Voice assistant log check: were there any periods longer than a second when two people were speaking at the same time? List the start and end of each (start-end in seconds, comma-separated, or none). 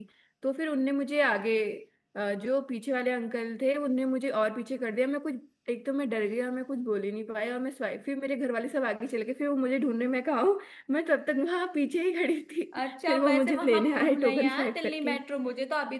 12.8-15.2